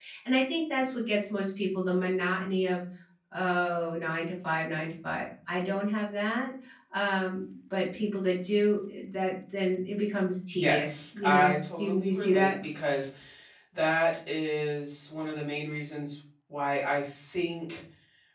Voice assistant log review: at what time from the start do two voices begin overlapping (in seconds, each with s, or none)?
10.5 s